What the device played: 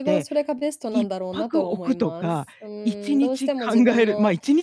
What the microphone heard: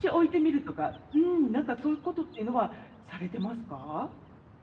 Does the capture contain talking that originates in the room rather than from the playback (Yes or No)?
Yes